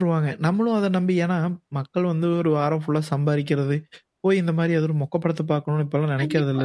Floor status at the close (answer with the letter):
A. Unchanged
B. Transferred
B